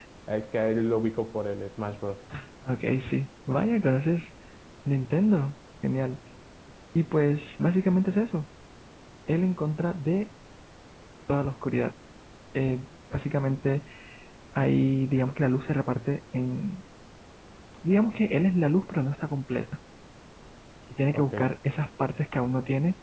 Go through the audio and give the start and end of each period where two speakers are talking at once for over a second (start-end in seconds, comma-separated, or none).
none